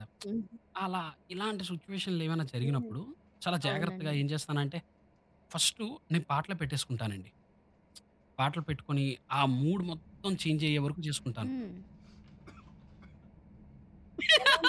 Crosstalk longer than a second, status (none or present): none